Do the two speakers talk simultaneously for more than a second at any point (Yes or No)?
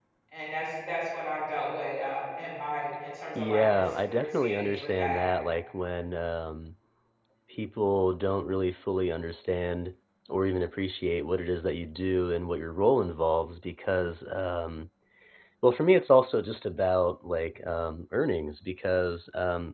Yes